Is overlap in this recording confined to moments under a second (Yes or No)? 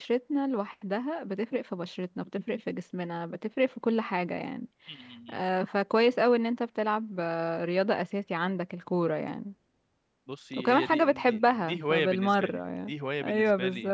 No